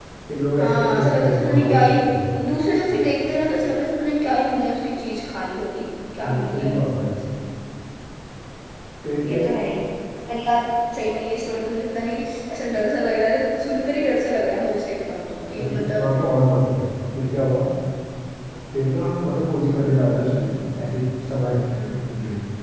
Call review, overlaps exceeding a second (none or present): present